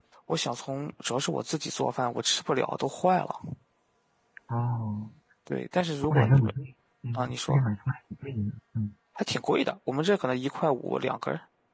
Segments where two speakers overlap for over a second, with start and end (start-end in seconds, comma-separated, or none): none